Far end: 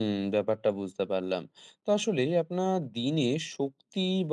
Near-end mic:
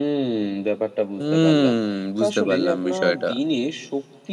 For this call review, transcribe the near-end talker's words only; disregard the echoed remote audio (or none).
হুম, বুঝতে পারলাম বিষয়টা।